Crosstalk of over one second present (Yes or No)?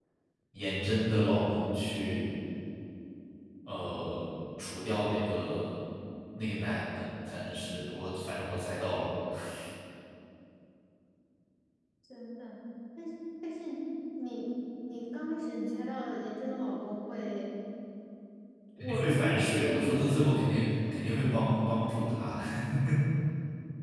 Yes